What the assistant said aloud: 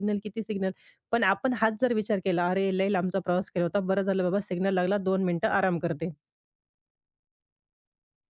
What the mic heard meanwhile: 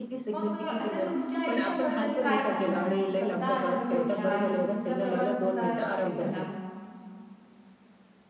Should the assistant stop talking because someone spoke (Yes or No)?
Yes